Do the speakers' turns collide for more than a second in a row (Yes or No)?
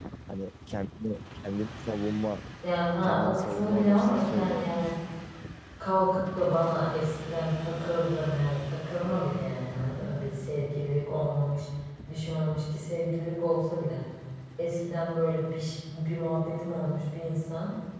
Yes